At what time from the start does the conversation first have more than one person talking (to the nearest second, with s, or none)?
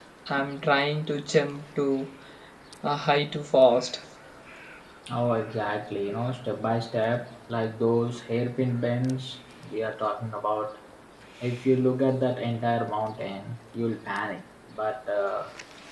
none